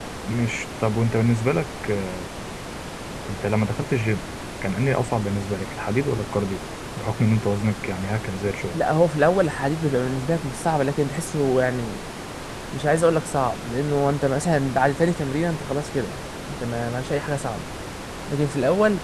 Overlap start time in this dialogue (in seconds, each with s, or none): none